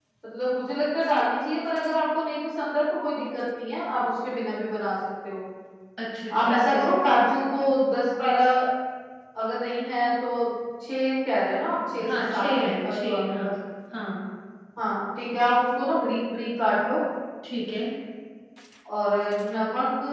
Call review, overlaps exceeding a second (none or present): present